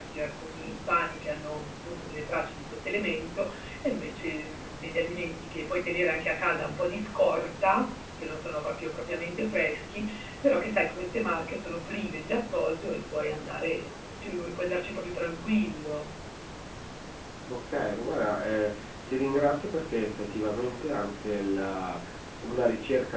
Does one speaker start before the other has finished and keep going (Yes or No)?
No